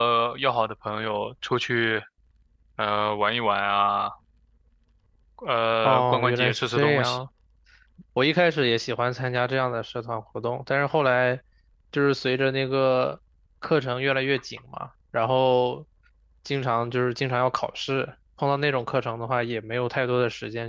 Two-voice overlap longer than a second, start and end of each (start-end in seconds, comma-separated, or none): 5.8-7.2